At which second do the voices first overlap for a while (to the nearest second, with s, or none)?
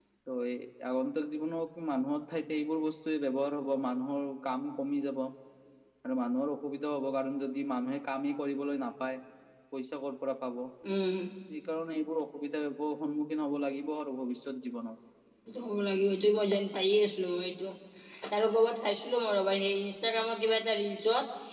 none